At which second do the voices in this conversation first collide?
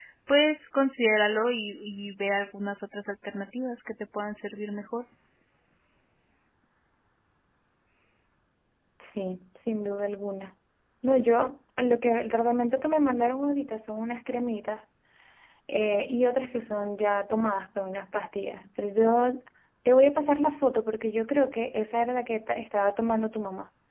none

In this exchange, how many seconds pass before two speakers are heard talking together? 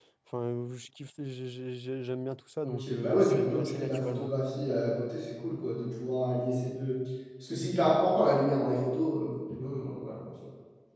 2.6 s

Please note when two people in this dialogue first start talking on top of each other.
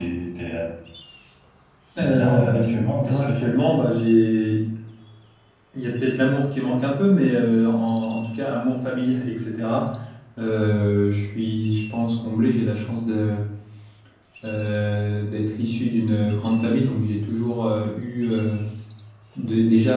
2.0 s

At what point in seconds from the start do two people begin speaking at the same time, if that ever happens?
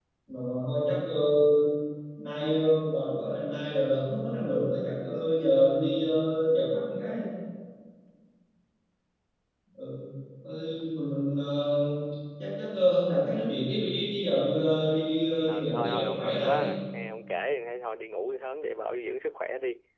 15.5 s

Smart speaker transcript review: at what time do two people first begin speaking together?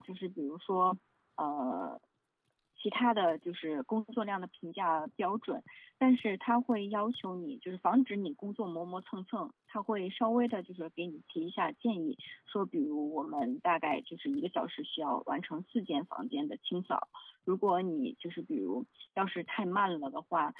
none

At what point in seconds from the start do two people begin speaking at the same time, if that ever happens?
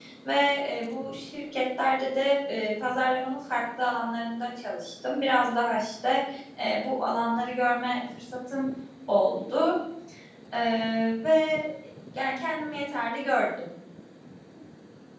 none

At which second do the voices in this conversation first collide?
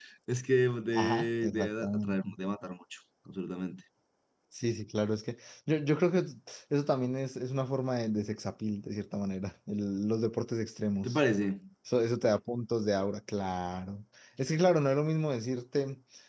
0.9 s

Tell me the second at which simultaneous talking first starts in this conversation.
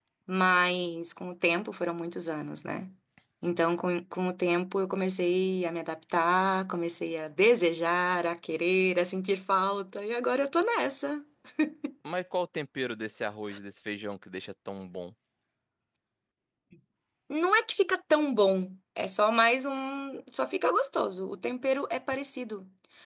none

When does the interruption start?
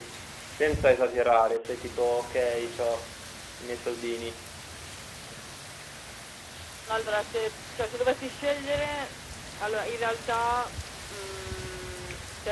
none

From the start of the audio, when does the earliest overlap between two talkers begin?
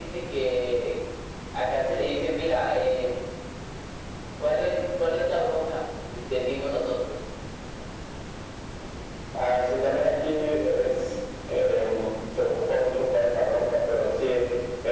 none

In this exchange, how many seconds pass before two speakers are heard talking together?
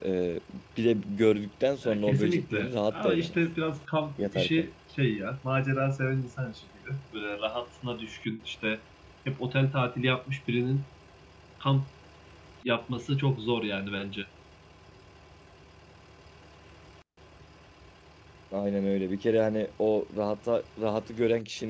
1.8 s

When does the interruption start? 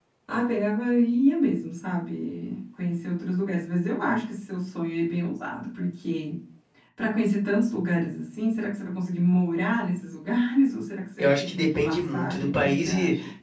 11.2 s

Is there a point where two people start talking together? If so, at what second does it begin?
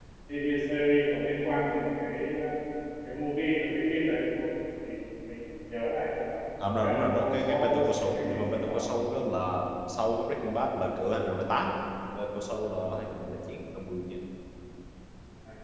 6.8 s

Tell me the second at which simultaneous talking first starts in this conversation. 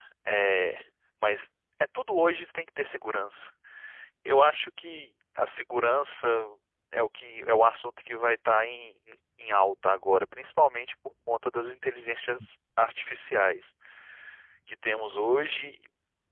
none

